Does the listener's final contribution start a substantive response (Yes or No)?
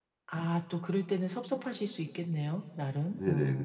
Yes